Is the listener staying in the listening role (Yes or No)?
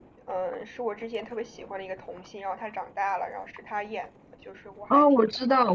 No